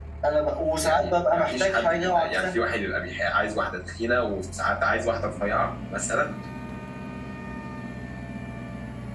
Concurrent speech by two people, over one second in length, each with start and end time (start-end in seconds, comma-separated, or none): 0.8-2.6